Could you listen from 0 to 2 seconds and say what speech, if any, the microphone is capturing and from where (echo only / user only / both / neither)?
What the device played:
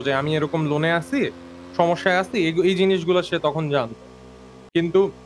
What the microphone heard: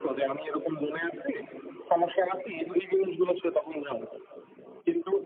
echo only